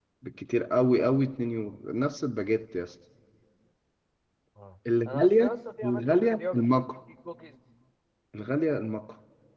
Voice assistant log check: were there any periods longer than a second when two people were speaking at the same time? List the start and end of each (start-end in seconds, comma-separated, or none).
5.0-6.8